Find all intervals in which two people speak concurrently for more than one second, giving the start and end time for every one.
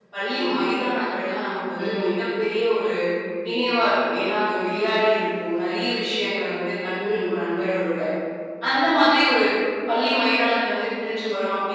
none

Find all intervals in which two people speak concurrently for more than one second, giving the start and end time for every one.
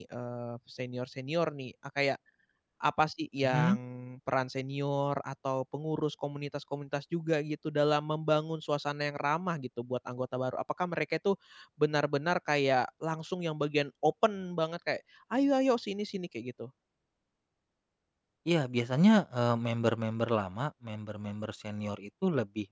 none

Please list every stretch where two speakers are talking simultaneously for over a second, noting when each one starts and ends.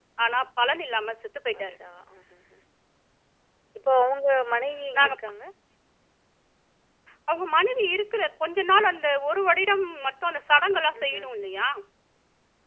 none

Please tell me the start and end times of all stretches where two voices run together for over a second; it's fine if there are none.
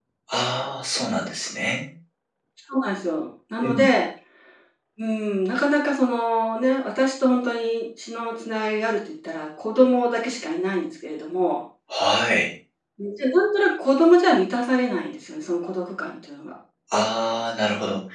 none

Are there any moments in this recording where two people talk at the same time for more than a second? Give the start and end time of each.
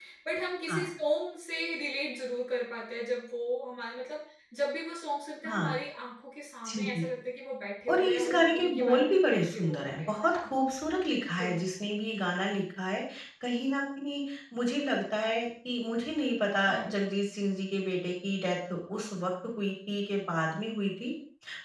7.9-10.4

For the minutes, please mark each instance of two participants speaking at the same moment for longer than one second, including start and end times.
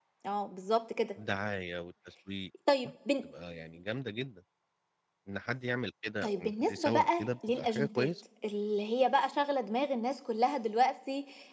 6.2-8.1

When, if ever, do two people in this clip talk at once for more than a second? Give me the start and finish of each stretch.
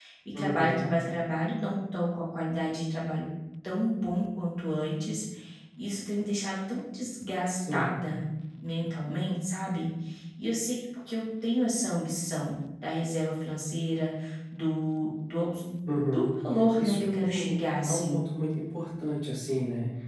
16.8-18.2

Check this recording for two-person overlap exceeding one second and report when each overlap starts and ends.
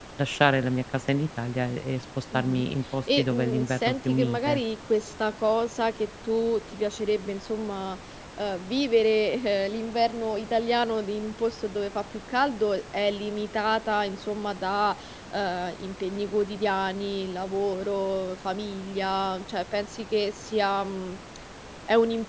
3.2-4.6

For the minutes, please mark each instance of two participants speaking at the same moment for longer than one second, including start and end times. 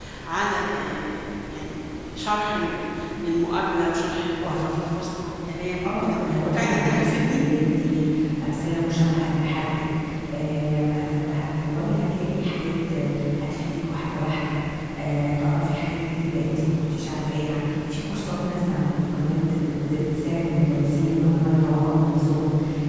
5.8-7.4

